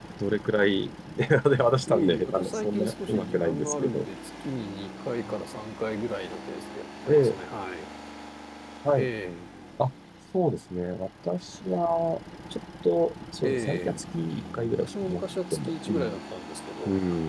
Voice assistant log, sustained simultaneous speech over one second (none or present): present